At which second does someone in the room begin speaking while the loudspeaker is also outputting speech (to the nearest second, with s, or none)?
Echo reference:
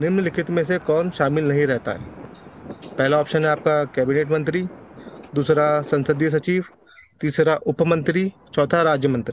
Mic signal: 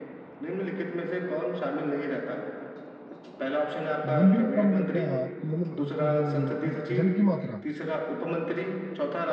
4 s